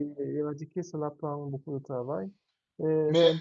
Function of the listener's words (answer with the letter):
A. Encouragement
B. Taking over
A